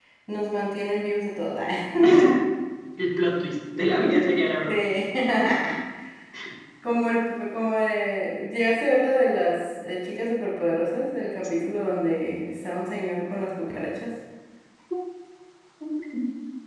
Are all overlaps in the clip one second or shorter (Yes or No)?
Yes